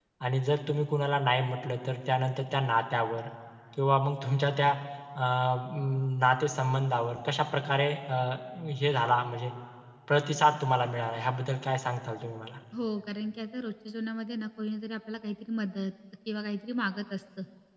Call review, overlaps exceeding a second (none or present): none